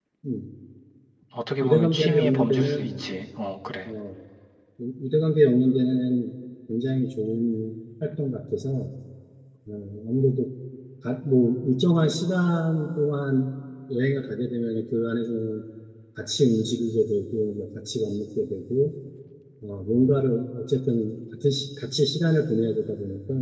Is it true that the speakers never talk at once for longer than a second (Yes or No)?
No